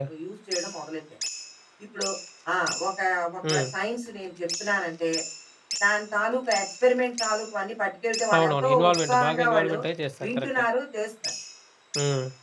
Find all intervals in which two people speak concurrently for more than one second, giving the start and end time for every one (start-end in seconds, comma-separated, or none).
8.3-9.8